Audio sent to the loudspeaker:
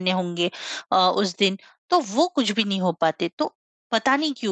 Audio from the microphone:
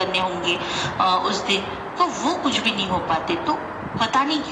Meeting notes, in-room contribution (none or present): none